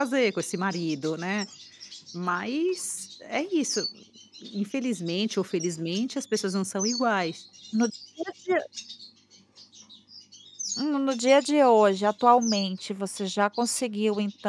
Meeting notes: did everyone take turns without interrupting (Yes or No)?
Yes